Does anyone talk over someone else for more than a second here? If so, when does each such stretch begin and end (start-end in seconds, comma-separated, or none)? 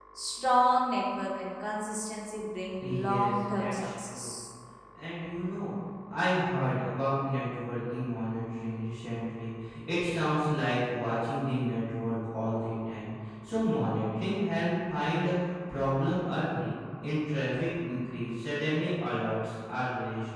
2.8-4.2